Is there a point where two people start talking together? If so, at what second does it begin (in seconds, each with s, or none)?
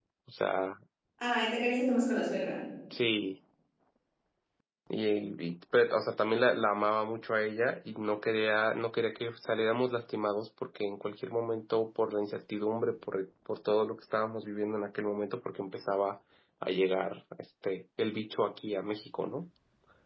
none